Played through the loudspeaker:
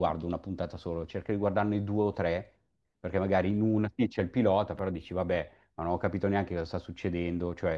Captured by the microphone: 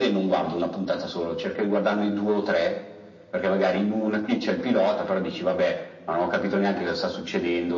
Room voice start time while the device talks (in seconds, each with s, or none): none